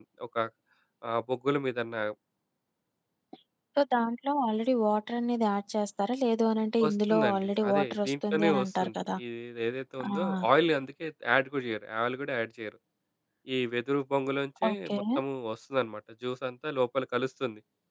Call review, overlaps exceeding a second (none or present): present